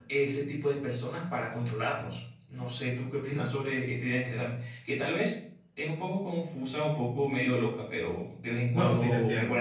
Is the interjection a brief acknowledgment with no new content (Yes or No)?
No